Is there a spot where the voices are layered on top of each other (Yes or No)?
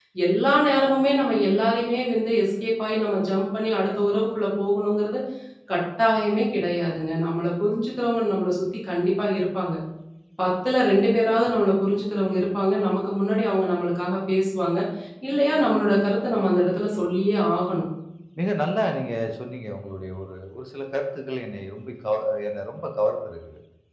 No